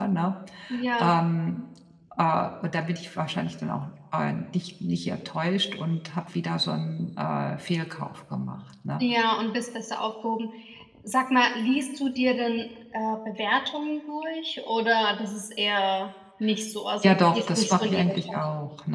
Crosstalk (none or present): present